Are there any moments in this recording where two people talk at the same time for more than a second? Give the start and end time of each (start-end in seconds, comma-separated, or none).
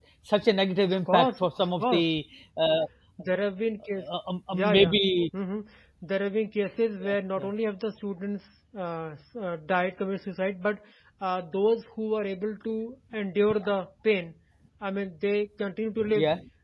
0.9-2.1